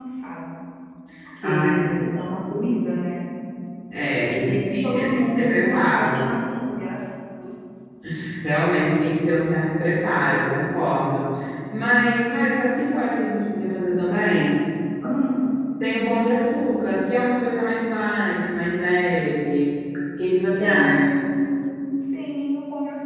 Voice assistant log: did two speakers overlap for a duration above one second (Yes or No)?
Yes